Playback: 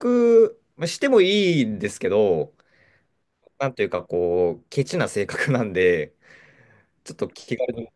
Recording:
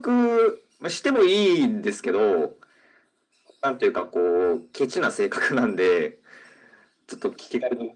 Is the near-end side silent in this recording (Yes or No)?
Yes